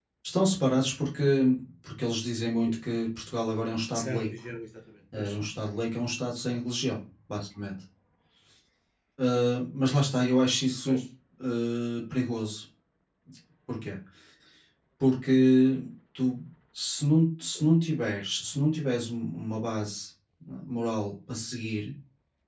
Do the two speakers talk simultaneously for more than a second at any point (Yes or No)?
No